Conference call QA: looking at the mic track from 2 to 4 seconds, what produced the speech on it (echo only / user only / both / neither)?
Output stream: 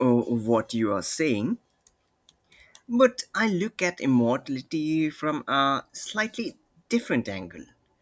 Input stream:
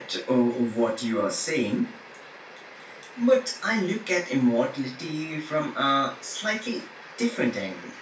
echo only